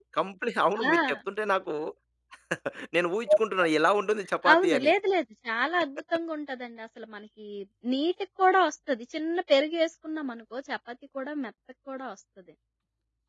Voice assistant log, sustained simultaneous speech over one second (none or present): none